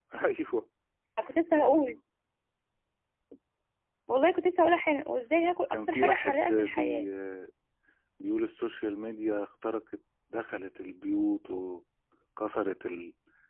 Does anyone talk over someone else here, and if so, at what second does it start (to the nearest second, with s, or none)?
6 s